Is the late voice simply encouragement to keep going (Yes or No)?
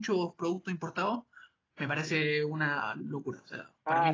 No